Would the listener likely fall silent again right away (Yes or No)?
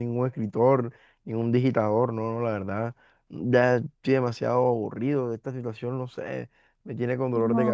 No